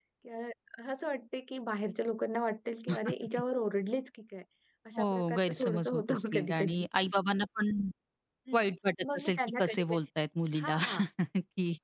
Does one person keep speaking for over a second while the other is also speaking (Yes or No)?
Yes